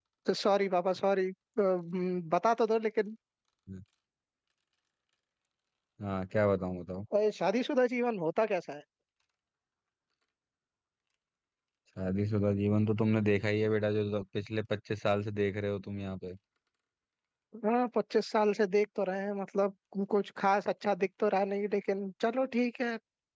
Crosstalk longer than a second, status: none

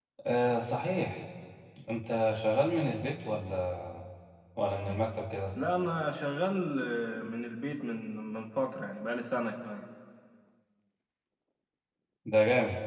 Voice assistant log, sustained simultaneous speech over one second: none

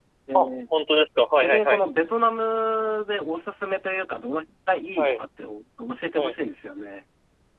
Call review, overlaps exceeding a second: none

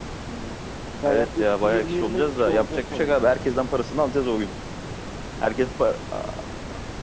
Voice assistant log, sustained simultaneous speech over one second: present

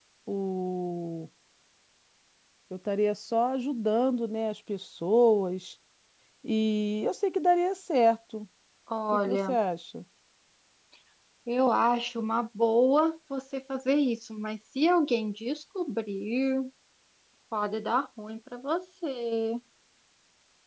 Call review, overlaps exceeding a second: none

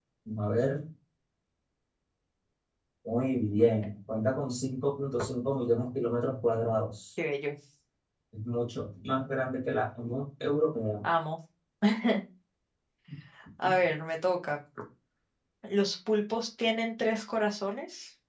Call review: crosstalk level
none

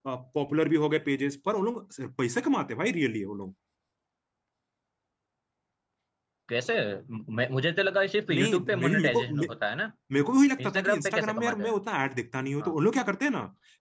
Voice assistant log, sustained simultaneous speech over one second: present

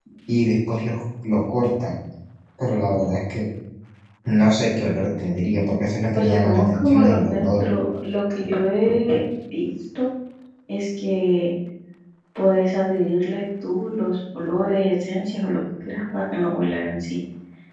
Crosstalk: present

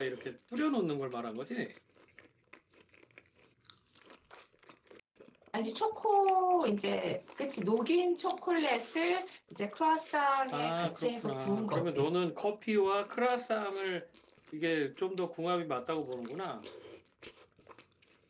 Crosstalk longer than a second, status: present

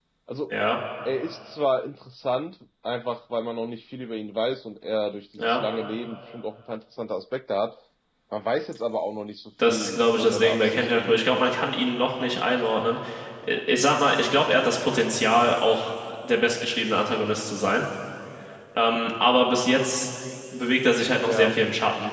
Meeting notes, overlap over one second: present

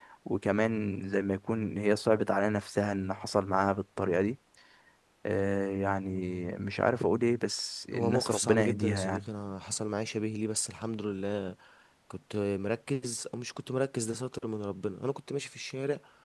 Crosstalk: present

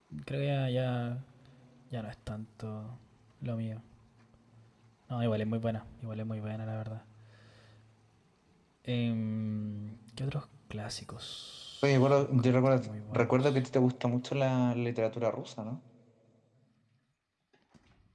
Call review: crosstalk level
present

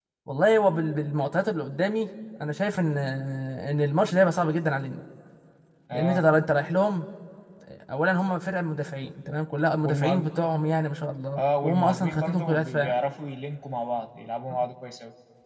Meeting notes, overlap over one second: present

